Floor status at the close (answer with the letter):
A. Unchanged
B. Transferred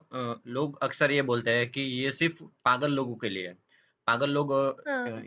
A